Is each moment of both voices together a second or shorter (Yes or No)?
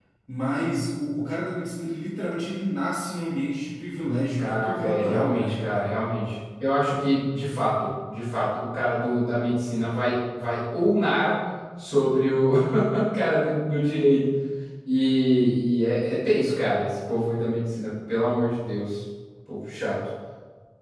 No